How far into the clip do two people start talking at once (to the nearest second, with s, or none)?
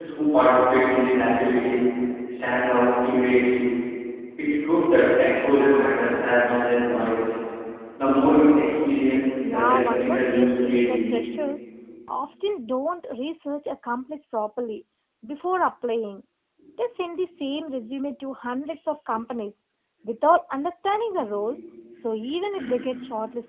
9 s